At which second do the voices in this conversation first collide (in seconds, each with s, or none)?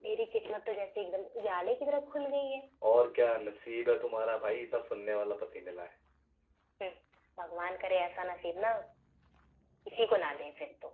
none